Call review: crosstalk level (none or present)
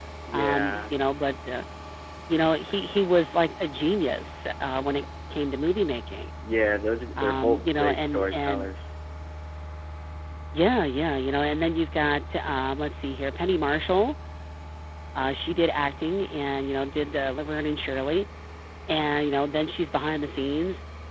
present